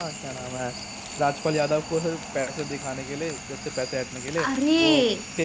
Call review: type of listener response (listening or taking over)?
listening